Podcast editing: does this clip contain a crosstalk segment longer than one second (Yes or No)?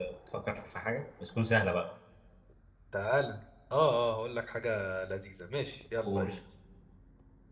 No